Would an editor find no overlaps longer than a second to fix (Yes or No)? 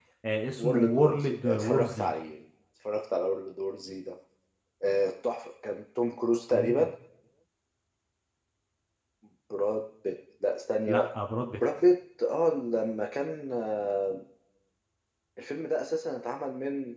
No